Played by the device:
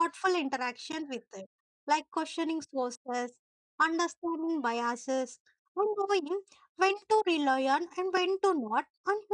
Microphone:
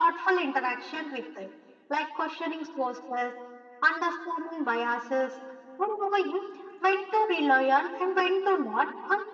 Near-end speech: none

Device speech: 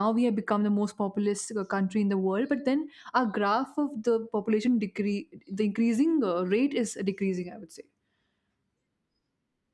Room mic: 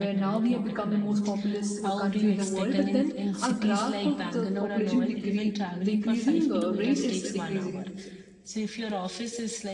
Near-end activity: present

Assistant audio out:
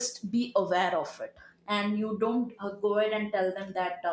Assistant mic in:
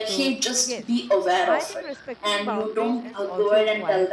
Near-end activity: present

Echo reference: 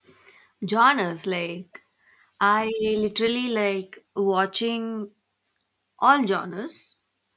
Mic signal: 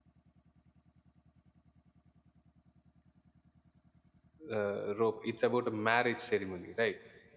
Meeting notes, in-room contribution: present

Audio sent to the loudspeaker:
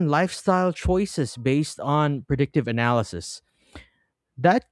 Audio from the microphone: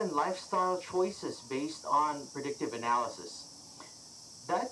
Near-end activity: none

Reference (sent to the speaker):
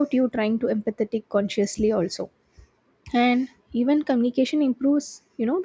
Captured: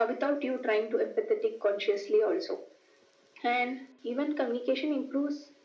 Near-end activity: none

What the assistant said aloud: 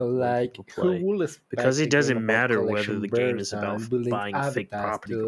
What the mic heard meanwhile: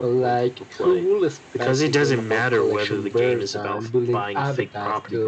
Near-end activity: none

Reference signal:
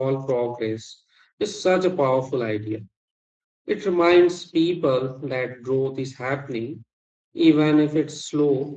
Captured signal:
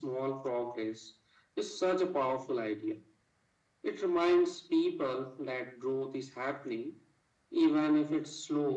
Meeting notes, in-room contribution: none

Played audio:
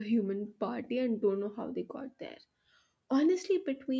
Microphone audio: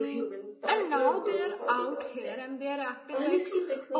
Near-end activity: present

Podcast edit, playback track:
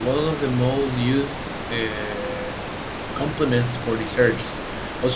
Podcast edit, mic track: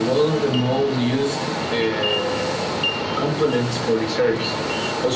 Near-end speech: none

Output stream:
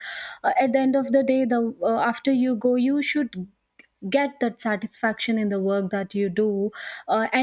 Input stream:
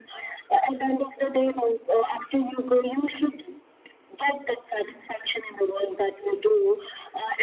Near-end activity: none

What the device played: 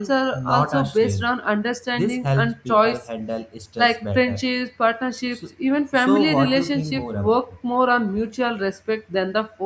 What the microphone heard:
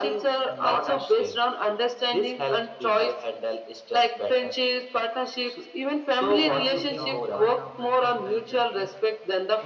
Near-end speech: present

